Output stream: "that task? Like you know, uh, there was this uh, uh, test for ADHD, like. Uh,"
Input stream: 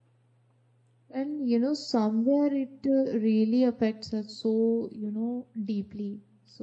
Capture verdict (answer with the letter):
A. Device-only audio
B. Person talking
B